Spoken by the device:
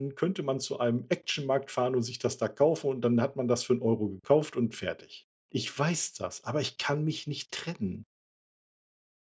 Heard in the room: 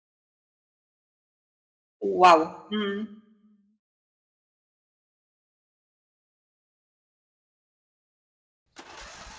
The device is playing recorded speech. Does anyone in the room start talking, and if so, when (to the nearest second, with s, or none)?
2 s